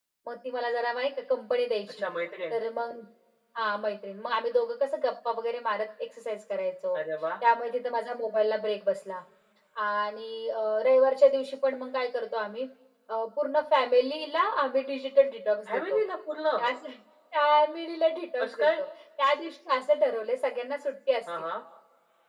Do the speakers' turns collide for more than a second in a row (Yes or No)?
No